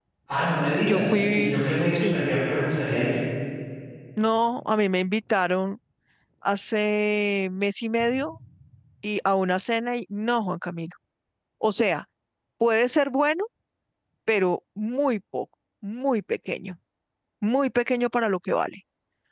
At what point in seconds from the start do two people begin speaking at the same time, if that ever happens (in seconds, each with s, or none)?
0.8 s